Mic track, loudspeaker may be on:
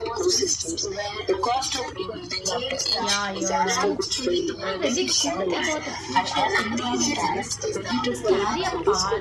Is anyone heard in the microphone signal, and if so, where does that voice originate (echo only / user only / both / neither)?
both